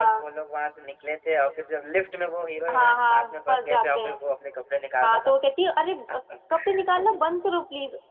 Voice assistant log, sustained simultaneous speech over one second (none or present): present